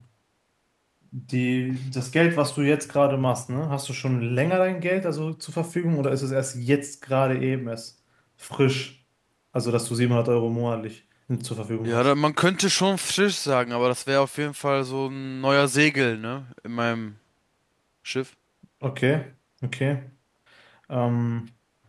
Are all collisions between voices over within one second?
Yes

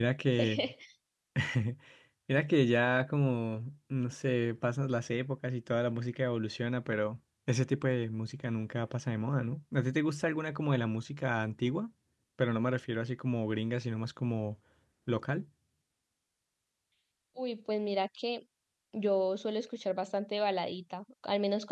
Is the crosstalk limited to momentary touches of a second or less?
Yes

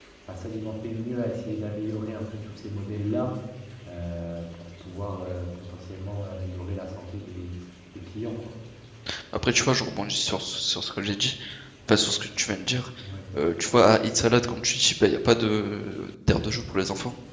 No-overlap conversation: Yes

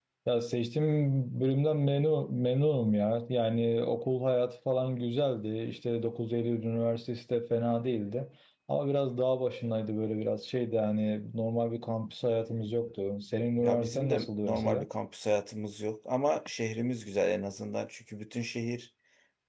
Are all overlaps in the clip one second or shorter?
No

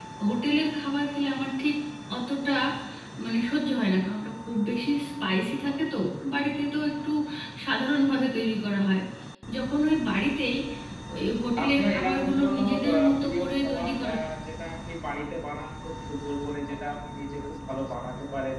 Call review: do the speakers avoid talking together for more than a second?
No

